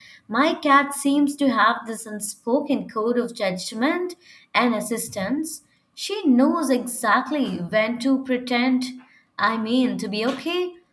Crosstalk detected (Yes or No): No